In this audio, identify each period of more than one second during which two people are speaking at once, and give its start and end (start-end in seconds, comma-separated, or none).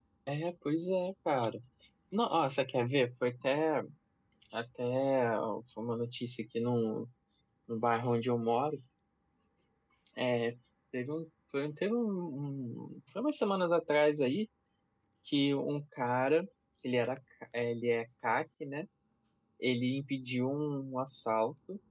none